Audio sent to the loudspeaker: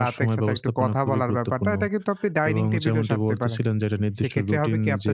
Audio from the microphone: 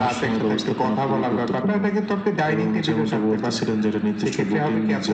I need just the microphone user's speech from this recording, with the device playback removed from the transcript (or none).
none